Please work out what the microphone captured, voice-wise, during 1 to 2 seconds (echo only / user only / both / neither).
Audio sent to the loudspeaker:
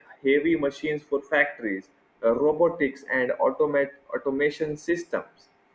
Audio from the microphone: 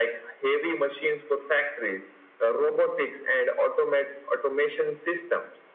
echo only